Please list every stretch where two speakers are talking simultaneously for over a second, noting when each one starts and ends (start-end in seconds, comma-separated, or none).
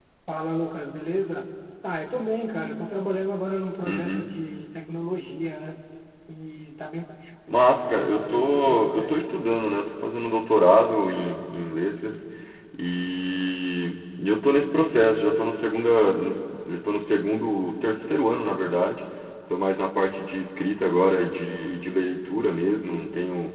7.7-9.2